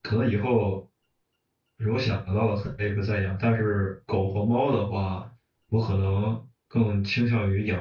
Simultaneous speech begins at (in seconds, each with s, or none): none